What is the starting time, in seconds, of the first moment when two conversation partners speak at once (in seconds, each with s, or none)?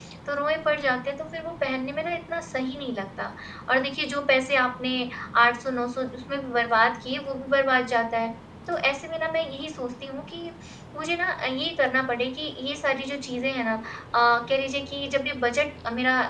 none